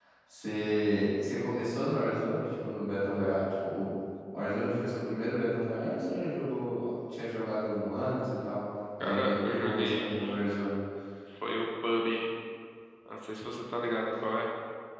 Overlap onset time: 9.0 s

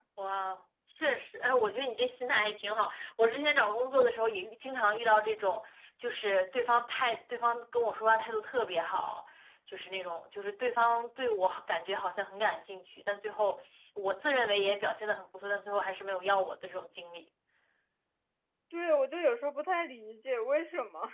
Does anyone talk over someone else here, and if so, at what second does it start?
none

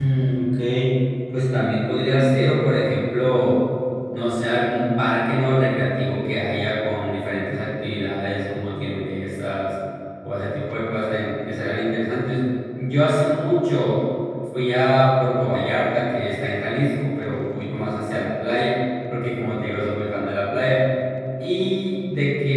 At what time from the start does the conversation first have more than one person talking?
none

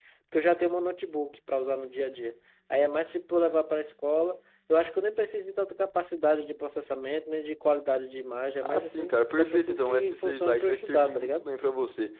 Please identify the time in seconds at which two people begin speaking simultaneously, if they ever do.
8.6 s

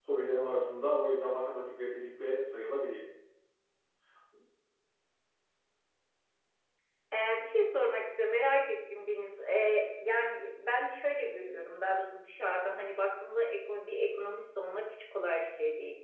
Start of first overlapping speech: none

